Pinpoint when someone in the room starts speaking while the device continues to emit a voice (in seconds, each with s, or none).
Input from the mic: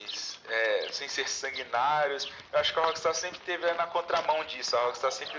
none